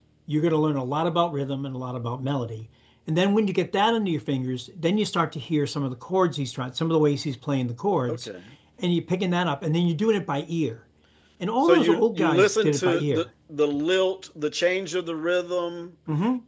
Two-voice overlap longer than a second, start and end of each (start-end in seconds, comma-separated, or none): 11.7-13.3